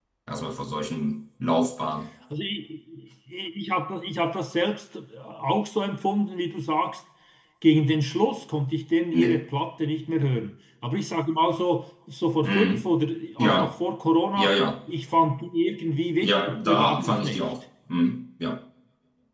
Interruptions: present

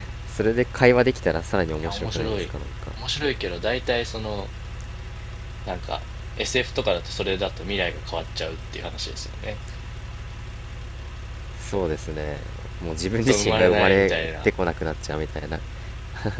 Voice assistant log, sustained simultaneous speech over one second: present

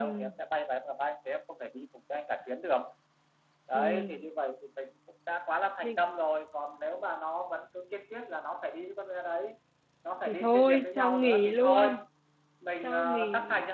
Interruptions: present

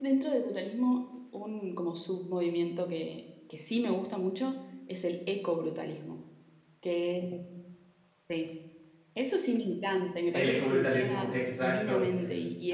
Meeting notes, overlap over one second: present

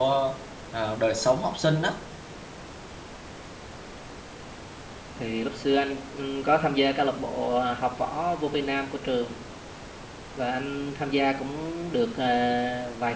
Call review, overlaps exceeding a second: none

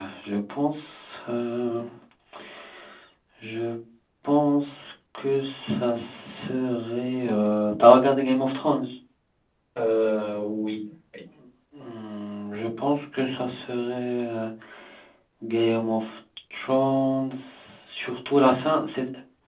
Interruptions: none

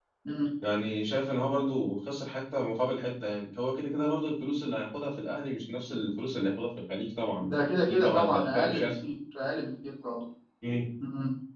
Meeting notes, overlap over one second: present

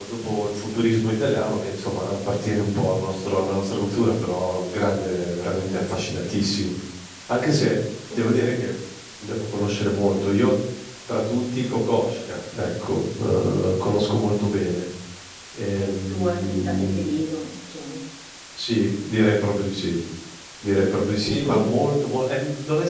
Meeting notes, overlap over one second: present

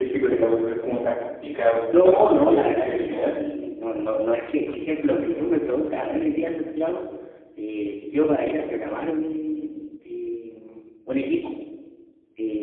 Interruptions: present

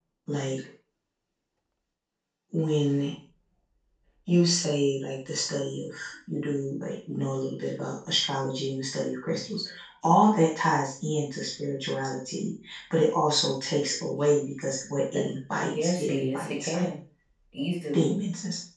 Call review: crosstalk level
present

